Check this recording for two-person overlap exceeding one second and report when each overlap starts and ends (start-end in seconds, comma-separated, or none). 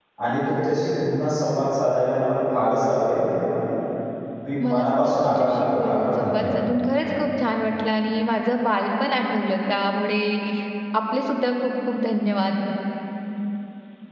4.6-6.6